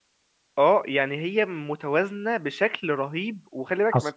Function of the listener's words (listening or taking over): taking over